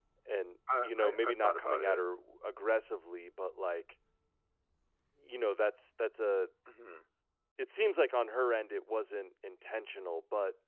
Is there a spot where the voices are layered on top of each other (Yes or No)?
Yes